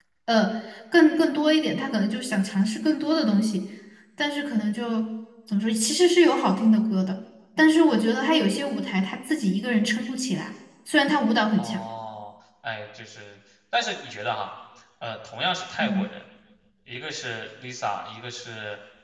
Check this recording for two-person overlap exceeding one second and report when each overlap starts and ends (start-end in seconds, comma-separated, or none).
none